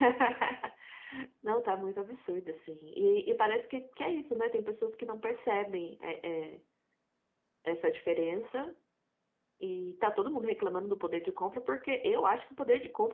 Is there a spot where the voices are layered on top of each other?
No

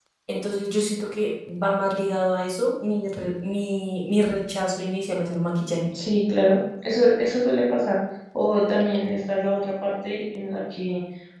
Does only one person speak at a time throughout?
Yes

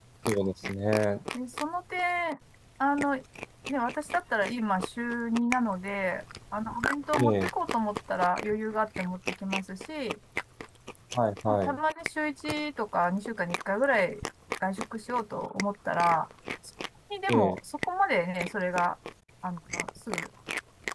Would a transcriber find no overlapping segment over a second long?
Yes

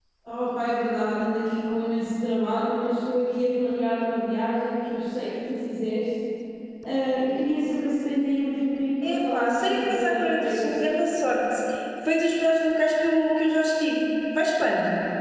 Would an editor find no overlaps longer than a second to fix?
No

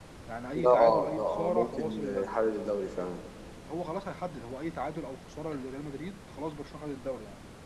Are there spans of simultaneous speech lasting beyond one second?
Yes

